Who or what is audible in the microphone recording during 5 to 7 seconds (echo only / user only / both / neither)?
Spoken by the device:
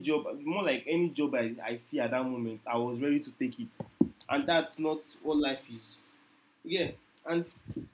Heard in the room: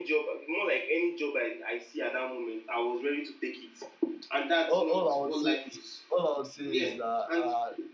both